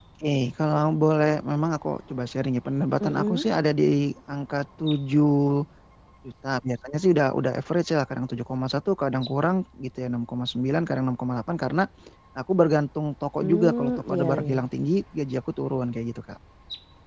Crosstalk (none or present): present